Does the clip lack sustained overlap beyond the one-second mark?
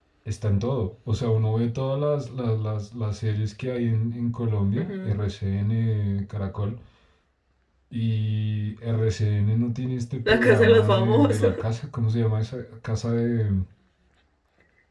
No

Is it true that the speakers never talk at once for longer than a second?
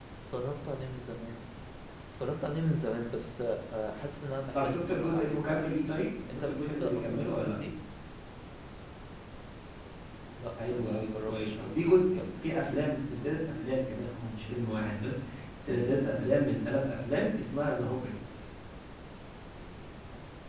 No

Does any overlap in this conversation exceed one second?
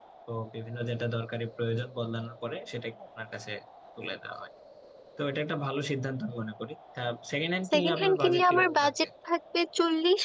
Yes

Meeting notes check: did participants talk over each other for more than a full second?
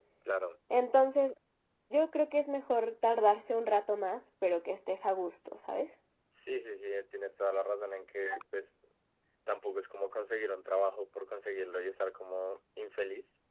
No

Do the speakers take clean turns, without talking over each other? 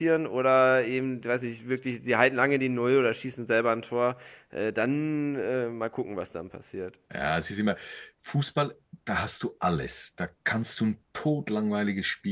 Yes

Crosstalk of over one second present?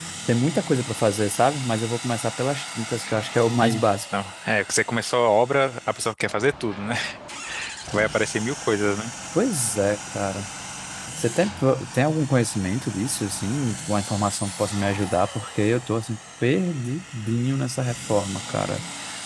No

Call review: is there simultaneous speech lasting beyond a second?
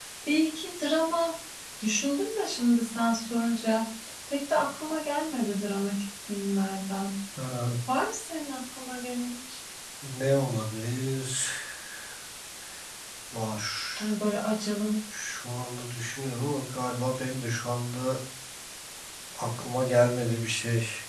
No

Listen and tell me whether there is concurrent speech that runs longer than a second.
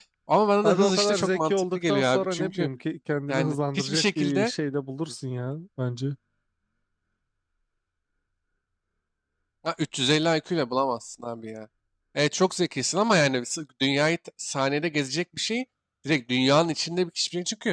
Yes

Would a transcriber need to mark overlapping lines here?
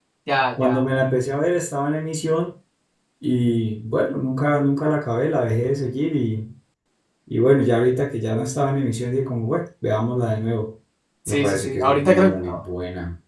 Yes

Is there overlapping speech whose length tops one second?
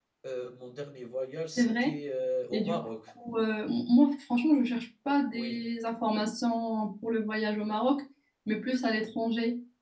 No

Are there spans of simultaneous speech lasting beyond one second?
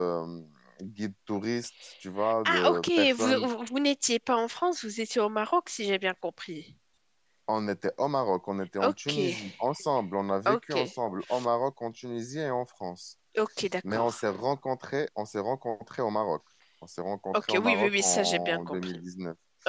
Yes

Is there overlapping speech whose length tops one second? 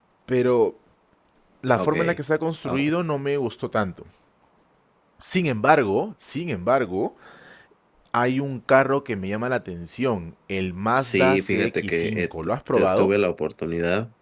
Yes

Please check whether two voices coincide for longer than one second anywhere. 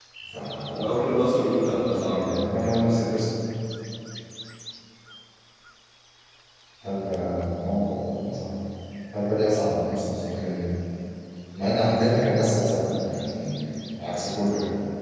Yes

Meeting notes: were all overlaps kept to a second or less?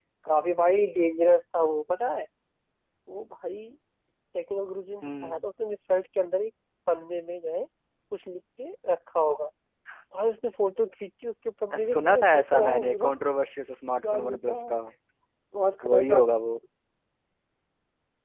No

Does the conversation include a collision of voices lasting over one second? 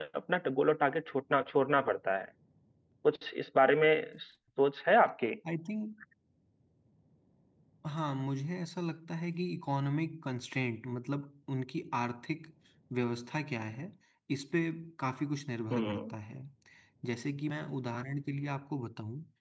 No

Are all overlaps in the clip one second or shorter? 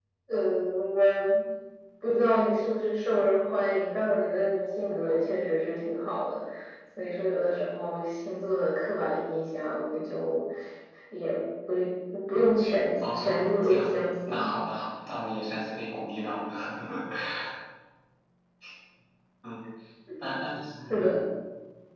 No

